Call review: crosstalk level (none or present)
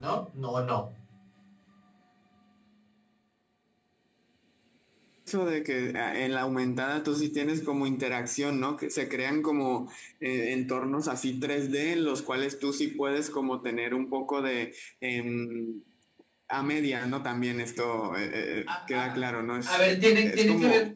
present